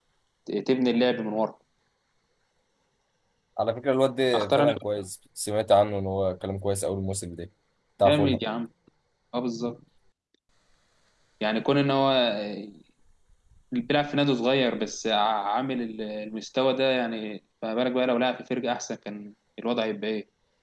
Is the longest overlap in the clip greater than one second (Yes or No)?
No